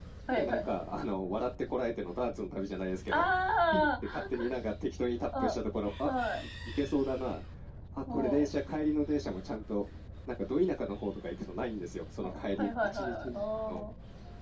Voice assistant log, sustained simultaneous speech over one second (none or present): present